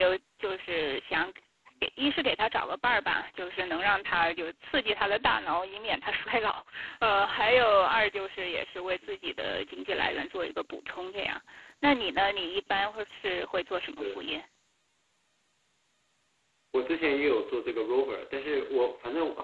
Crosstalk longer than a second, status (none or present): none